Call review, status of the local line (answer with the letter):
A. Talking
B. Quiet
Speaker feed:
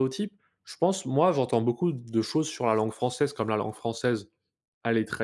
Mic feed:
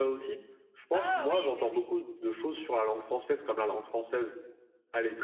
A